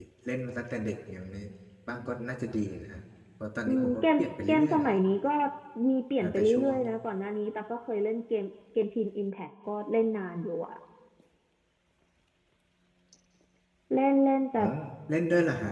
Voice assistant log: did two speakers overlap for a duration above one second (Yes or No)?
Yes